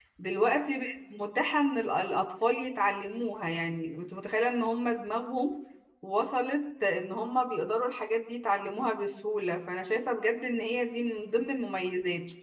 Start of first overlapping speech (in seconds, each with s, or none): none